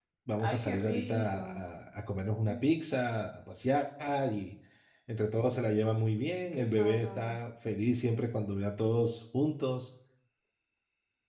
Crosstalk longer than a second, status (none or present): present